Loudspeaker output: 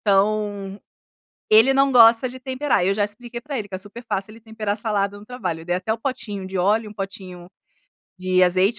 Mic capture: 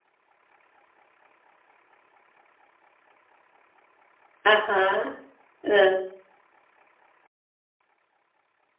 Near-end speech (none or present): present